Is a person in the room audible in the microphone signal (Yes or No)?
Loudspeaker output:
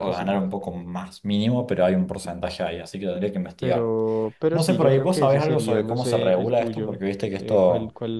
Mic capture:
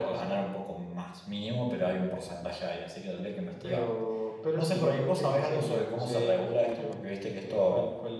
No